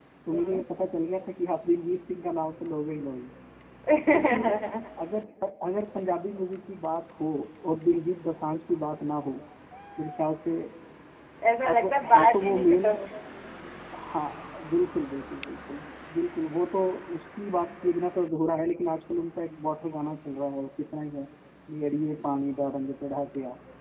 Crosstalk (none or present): present